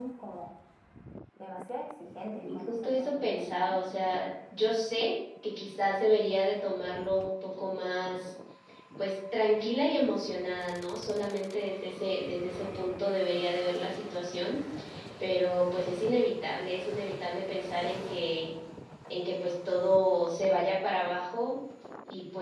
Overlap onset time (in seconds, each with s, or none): 2.3 s